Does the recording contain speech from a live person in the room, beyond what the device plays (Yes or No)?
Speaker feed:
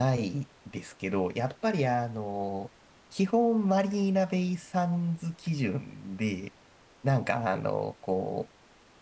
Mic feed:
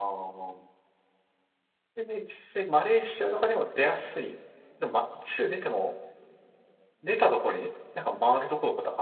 Yes